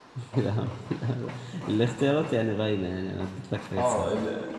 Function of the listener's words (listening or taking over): taking over